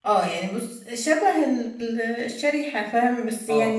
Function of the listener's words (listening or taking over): taking over